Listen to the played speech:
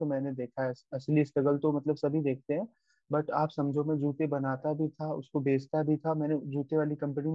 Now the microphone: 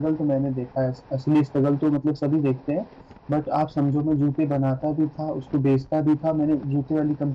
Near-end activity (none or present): none